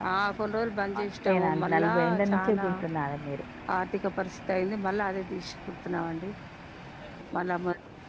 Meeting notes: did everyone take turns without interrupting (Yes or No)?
No